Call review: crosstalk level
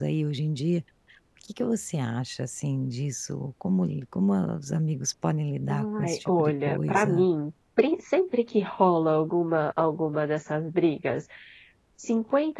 present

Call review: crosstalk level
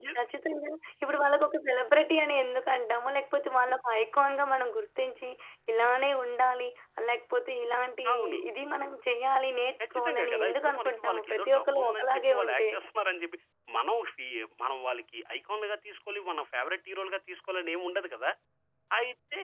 present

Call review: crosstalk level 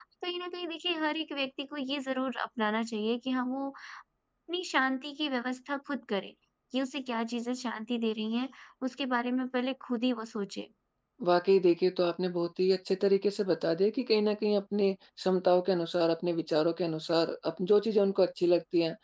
none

